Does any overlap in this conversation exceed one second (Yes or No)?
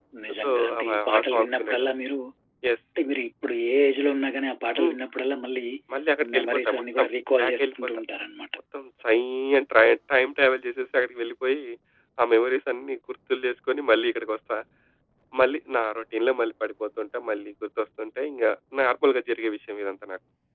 Yes